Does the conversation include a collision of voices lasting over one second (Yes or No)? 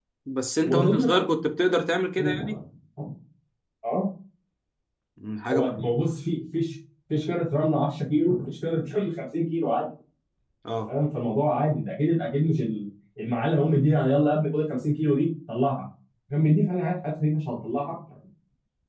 No